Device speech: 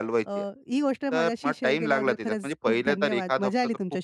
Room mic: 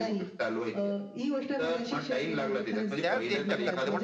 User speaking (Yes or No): Yes